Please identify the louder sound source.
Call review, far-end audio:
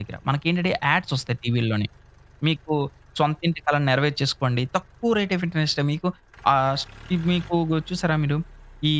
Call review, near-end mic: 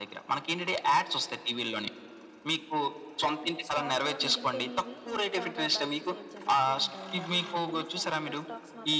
echo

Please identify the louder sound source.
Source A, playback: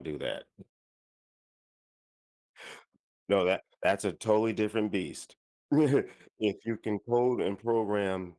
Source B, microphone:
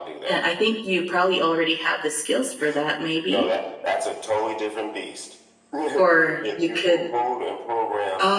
user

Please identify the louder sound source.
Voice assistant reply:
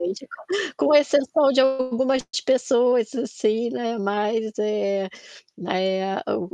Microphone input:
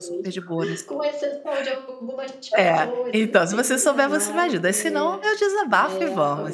user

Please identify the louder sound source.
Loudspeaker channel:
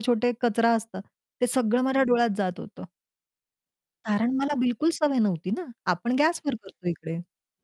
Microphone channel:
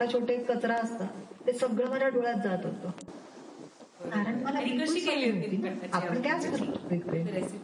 echo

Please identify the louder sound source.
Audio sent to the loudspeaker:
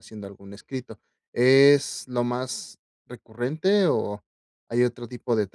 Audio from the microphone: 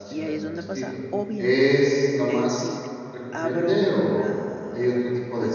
echo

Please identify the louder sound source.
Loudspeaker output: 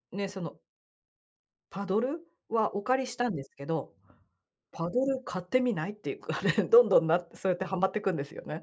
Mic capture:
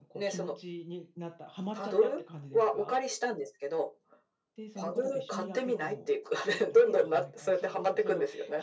echo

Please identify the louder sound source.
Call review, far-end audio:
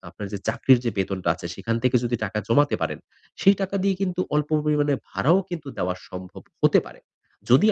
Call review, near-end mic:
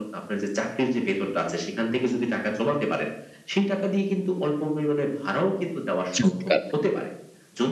user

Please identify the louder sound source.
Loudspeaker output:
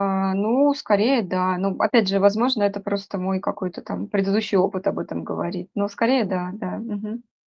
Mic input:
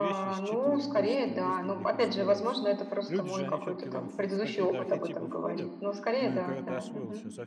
echo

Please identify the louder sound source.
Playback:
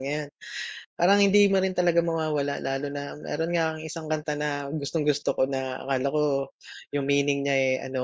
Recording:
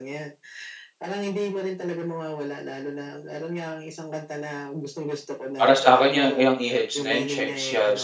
user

